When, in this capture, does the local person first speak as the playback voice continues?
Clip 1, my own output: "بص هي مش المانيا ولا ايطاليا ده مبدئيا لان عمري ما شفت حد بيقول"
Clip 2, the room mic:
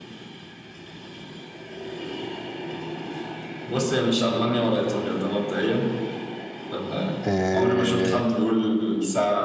7.3 s

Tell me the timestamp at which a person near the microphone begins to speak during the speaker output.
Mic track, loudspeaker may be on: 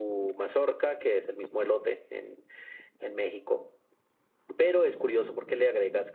none

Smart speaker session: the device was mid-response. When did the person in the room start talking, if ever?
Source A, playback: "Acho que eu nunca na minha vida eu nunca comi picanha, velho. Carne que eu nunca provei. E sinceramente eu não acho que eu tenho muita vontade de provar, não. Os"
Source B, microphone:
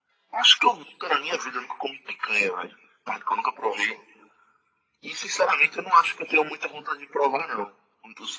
none

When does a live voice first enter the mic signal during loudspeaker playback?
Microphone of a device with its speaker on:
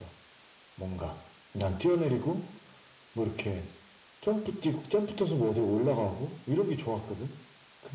none

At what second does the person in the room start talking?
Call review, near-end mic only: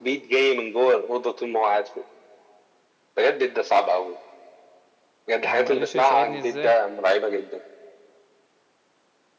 5.4 s

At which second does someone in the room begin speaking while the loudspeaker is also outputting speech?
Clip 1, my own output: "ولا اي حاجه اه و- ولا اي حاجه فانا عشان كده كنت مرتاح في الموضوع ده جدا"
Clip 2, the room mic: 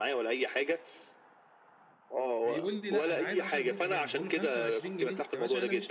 2.4 s

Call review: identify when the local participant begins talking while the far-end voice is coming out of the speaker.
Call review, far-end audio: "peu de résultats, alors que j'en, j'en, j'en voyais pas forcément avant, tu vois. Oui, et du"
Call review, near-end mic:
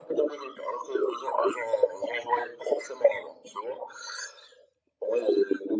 none

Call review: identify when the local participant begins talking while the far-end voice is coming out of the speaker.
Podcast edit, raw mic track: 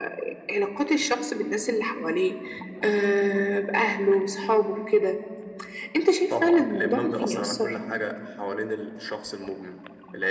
none

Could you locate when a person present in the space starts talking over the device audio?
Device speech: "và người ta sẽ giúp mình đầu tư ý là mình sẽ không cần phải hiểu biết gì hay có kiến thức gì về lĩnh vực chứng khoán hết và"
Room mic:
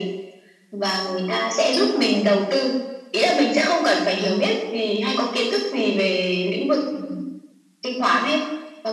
none

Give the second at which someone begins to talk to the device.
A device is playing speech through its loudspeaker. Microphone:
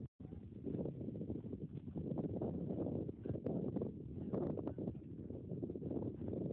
none

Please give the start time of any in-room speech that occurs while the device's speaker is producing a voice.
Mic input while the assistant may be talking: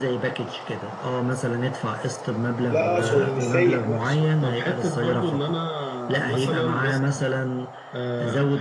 2.7 s

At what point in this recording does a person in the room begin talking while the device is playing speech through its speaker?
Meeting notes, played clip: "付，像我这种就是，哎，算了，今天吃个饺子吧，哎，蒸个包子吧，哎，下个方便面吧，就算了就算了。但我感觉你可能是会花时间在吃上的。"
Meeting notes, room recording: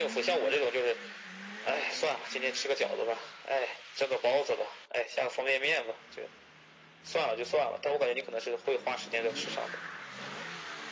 none

